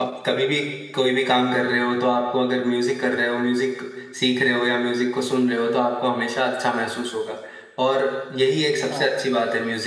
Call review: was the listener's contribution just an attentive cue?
Yes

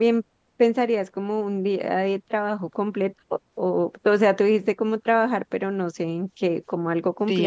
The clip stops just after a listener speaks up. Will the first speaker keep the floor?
No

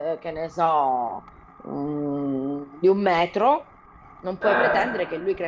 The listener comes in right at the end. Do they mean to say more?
No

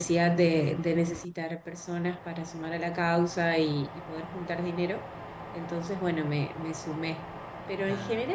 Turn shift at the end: No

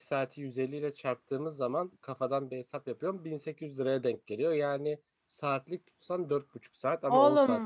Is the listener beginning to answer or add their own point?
Yes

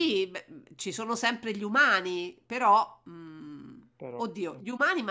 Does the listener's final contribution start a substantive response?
No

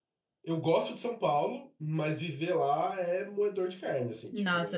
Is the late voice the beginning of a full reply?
Yes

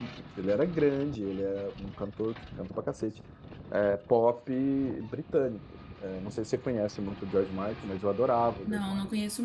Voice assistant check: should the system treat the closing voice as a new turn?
Yes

